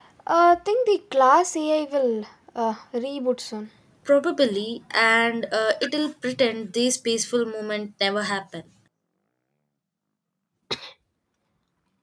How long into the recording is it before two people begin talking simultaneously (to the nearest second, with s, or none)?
none